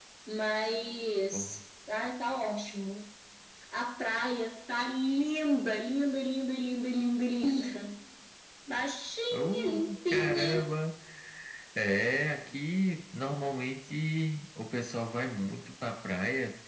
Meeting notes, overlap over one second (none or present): present